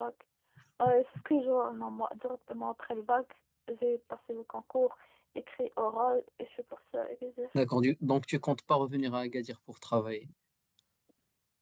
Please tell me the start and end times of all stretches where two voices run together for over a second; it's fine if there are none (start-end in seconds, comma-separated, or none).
none